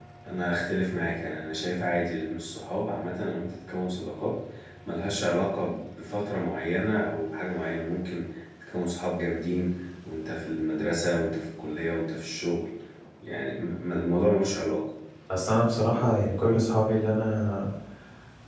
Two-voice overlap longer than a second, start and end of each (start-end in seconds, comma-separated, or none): none